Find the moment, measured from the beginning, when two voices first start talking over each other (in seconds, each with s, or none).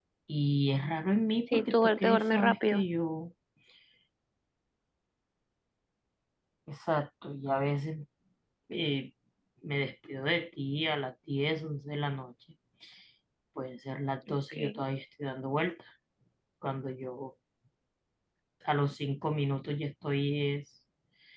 1.5 s